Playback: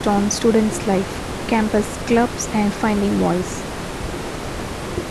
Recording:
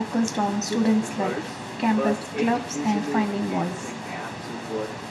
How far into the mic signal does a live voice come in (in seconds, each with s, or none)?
0.6 s